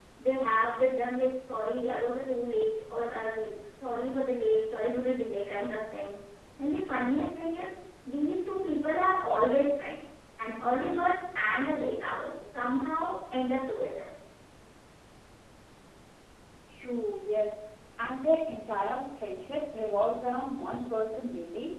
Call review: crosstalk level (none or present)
none